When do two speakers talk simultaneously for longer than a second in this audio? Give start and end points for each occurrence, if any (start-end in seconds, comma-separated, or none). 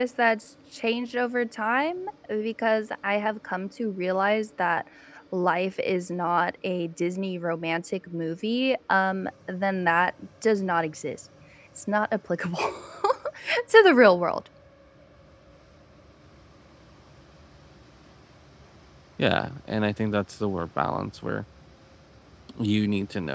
none